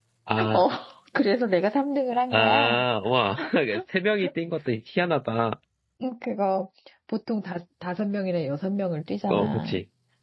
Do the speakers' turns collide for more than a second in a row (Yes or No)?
No